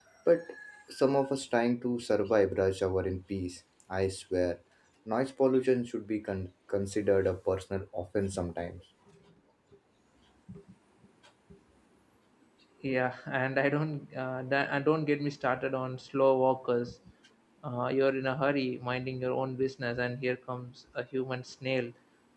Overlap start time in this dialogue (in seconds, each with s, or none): none